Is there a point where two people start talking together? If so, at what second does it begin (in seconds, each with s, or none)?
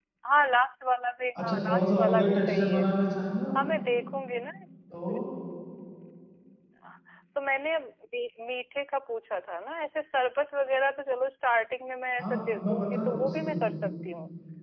1.4 s